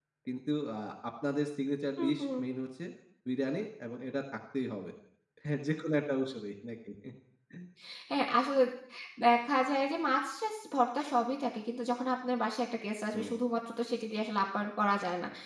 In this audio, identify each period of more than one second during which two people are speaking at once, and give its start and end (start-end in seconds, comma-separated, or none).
none